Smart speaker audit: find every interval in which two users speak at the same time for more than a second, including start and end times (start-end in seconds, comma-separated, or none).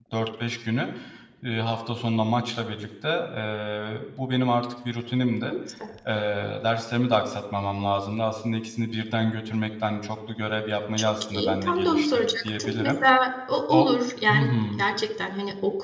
11.0-12.9